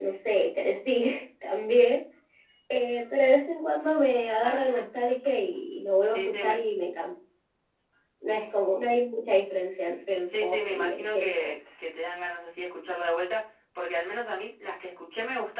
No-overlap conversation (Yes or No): No